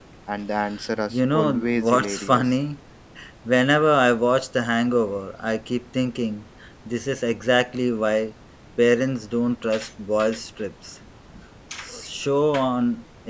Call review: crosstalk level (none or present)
present